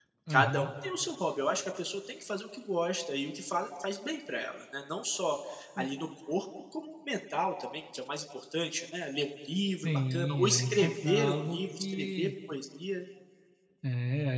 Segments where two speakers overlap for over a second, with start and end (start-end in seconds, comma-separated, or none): 9.8-12.3